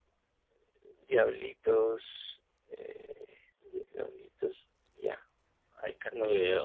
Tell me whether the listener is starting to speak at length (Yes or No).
Yes